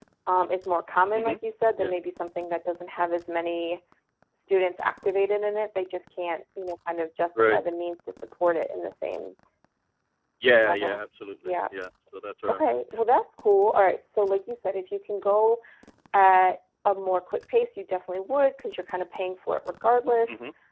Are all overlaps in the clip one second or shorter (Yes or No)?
Yes